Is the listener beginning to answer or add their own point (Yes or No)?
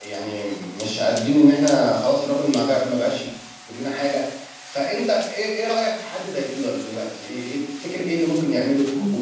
No